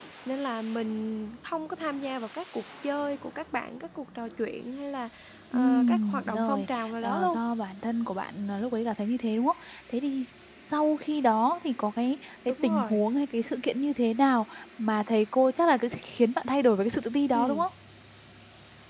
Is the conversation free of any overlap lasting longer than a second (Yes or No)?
No